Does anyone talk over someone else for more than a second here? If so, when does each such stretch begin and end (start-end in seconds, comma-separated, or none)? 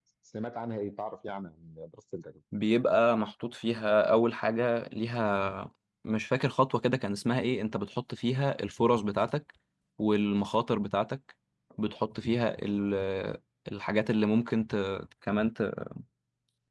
none